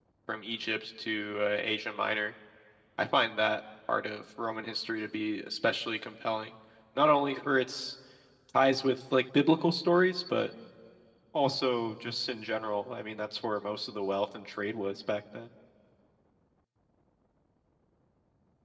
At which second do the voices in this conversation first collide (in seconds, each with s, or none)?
none